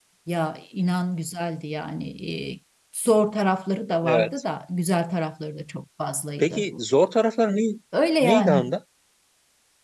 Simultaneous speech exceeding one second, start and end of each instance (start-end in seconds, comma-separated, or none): none